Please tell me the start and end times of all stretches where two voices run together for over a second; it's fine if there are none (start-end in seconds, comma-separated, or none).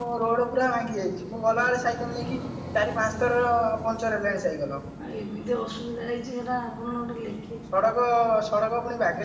none